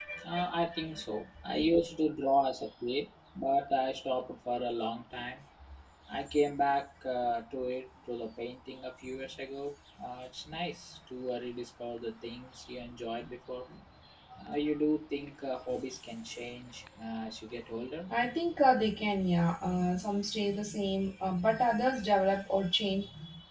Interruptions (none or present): none